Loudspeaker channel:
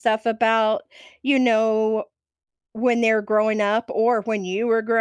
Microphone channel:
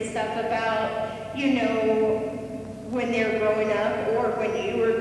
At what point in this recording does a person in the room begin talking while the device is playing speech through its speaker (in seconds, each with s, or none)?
none